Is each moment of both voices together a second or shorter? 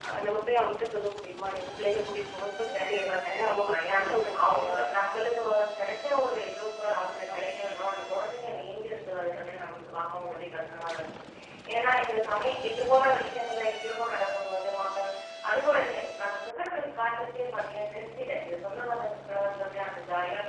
No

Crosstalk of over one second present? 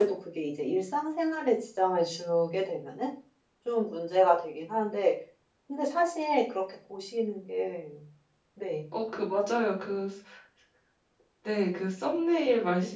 No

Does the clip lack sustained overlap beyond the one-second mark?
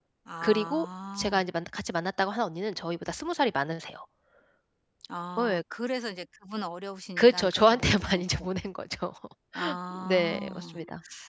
No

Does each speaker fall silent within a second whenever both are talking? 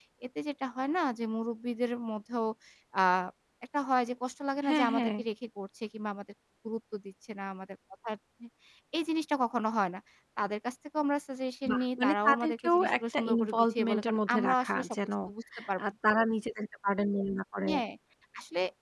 No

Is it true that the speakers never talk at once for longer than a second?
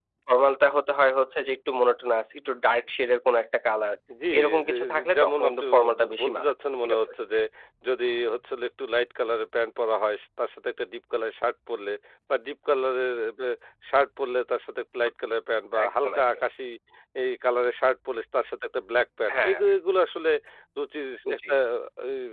No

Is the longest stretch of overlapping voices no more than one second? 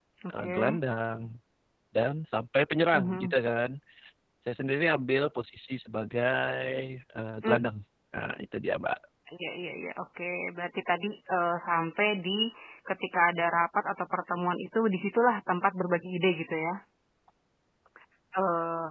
Yes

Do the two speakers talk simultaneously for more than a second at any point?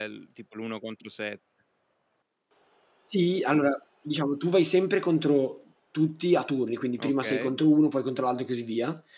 No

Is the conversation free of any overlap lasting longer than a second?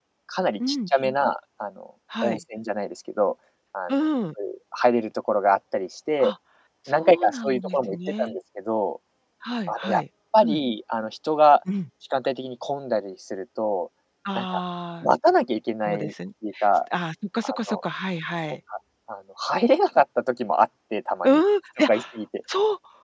No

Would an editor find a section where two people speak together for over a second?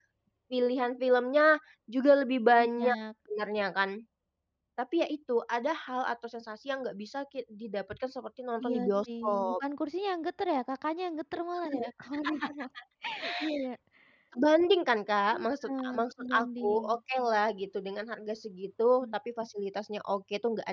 Yes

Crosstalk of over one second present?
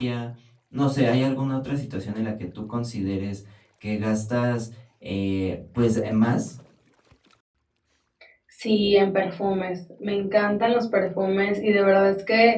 No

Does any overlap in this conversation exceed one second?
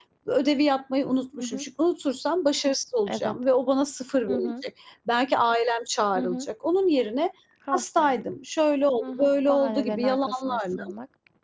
Yes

